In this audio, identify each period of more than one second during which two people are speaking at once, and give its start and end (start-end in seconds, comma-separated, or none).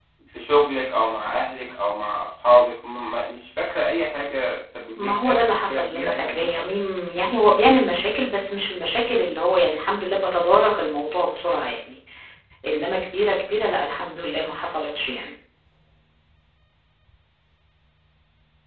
5.0-6.7